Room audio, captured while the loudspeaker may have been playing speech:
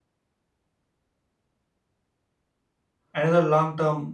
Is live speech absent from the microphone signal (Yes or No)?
No